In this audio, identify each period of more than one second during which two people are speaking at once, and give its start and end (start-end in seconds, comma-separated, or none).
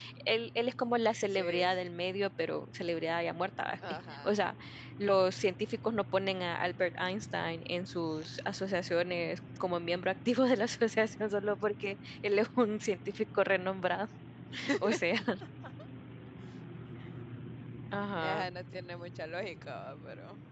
none